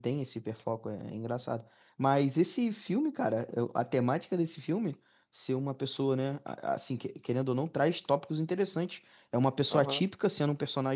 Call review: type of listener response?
listening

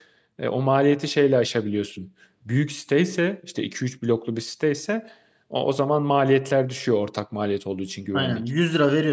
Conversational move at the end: taking over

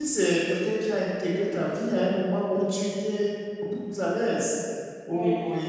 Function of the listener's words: listening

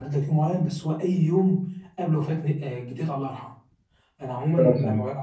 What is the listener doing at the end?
listening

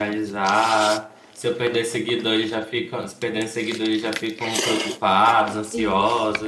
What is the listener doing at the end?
taking over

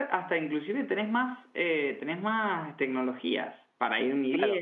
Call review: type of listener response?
taking over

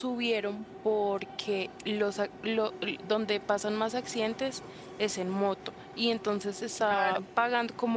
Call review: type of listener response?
listening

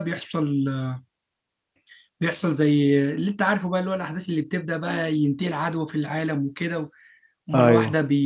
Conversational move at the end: listening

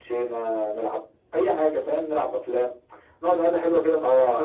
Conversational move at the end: taking over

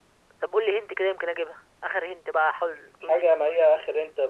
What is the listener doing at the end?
taking over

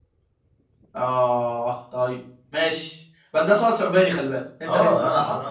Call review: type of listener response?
taking over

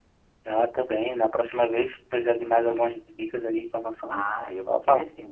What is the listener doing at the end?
taking over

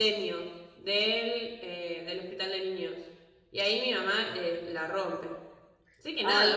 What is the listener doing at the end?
taking over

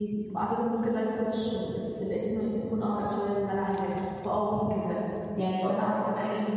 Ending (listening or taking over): listening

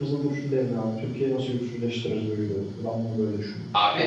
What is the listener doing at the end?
taking over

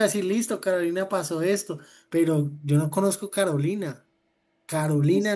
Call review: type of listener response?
taking over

